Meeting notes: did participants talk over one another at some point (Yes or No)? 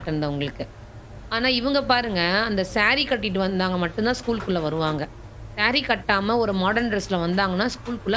No